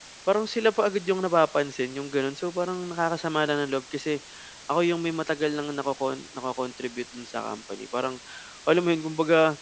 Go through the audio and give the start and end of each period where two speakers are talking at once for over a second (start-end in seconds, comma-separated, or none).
none